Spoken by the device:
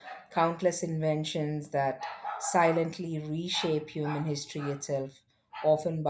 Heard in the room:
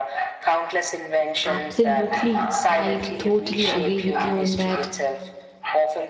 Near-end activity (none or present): present